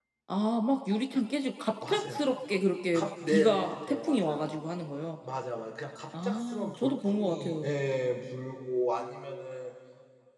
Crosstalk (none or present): present